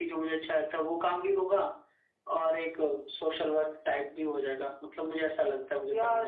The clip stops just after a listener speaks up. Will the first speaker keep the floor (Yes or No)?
No